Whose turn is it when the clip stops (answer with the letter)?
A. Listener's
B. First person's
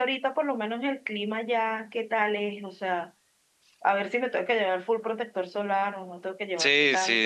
A